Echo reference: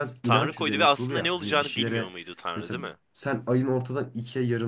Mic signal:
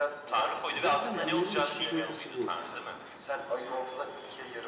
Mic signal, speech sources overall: both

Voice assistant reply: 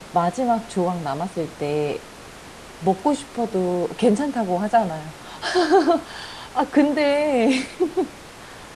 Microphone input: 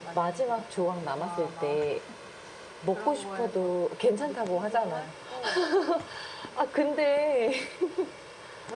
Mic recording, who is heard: both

